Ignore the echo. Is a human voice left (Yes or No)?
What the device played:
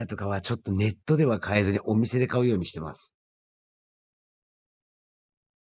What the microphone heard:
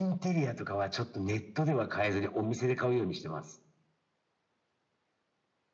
No